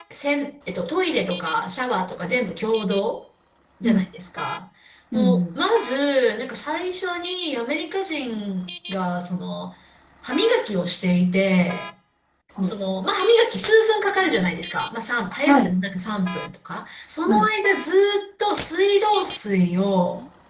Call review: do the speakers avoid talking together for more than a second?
Yes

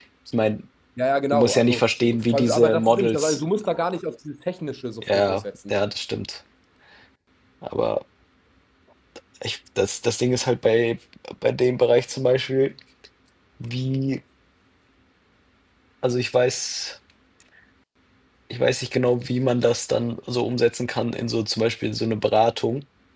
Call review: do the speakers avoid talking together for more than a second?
No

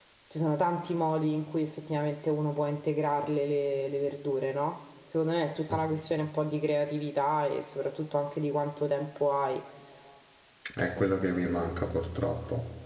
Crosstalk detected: No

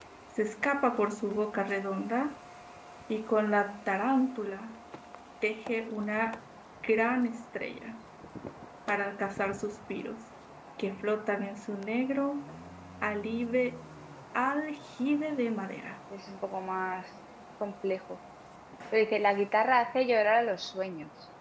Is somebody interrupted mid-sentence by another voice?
No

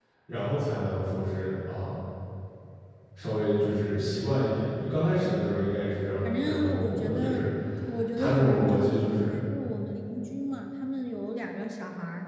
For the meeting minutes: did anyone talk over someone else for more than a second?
Yes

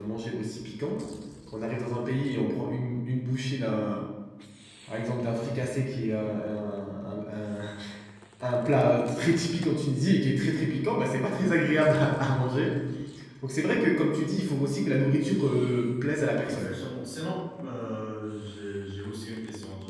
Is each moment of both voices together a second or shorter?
Yes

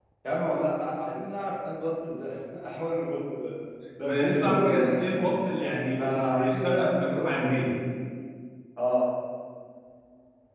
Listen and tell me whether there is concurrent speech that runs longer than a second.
Yes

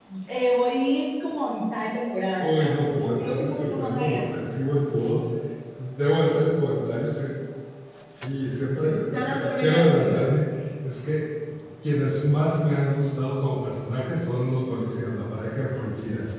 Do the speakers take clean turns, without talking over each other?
No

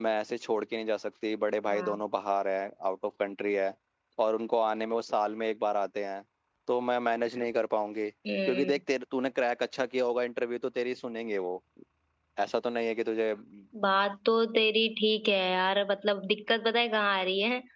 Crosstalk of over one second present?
No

